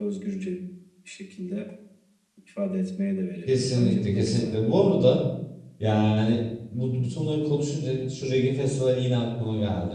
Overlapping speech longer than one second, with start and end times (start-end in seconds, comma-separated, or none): 3.5-4.7